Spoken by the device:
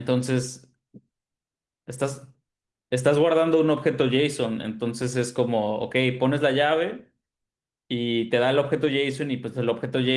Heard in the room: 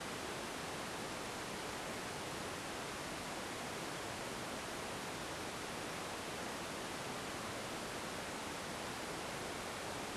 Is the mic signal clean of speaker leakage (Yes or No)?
Yes